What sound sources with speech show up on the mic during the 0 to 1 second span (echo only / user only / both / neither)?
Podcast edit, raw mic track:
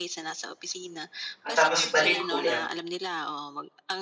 echo only